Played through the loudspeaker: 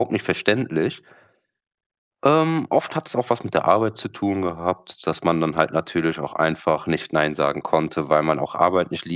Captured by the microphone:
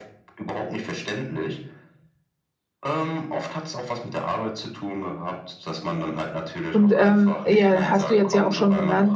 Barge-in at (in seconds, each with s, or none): 6.7 s